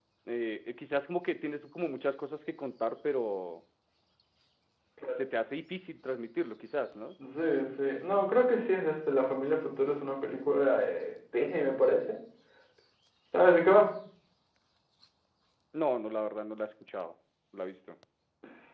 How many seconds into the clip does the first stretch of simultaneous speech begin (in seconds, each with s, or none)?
none